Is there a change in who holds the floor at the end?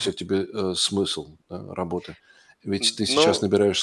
No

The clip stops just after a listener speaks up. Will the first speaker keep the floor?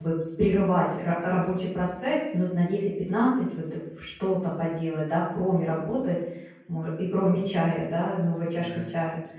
Yes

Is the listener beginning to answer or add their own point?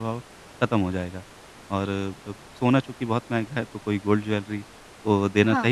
No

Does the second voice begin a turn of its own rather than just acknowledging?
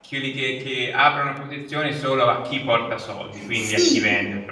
Yes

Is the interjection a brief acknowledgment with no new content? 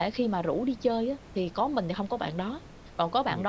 Yes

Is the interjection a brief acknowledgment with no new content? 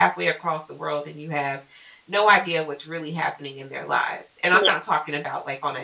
Yes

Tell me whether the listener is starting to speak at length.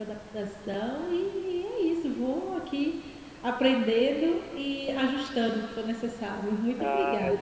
Yes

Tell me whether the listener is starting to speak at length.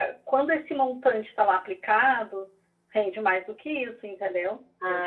No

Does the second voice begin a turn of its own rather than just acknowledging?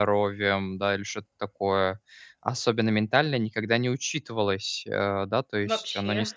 No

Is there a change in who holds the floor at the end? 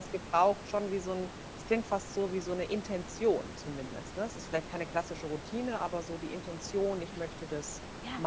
Yes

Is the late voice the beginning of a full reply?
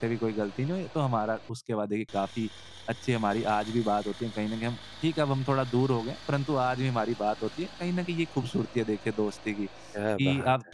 No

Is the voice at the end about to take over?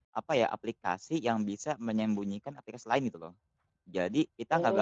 Yes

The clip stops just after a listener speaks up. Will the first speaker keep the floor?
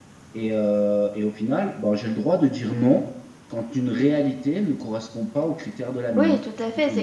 No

